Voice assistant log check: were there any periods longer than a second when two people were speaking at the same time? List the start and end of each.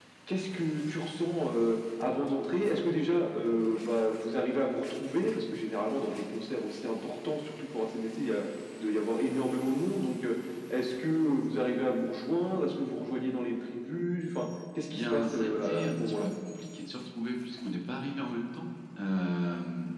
14.9-16.3

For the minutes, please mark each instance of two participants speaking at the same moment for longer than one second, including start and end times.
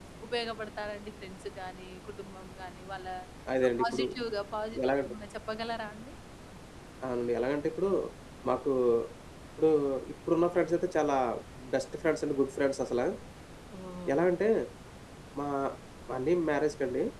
none

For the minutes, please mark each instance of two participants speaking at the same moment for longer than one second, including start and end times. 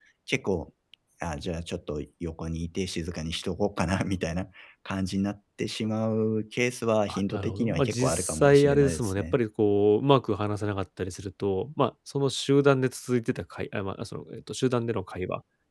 7.1-9.4

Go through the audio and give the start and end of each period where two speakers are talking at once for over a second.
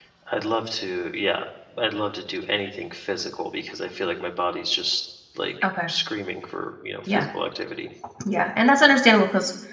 none

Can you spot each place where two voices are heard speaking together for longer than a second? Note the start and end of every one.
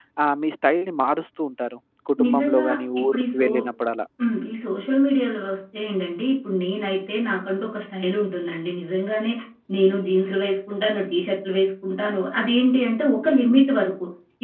2.2-3.5

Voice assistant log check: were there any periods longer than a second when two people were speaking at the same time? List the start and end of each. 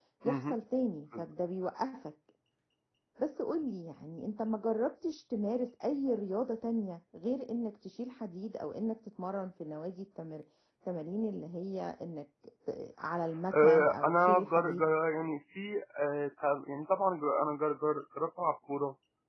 13.5-14.8

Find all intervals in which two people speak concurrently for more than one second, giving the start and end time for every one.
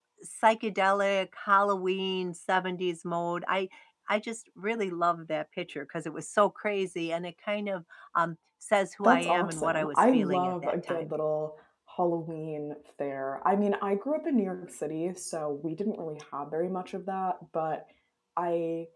9.0-11.1

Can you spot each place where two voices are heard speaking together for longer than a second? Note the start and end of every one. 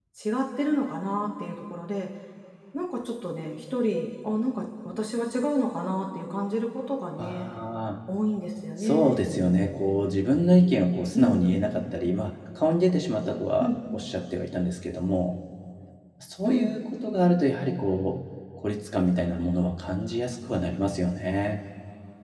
none

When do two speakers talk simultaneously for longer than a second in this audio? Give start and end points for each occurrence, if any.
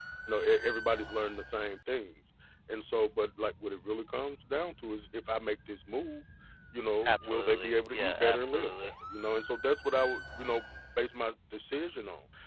7.0-8.9

